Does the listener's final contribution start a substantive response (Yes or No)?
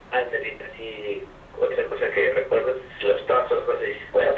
No